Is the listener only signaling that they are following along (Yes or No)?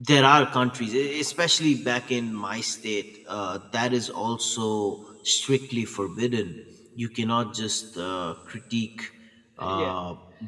Yes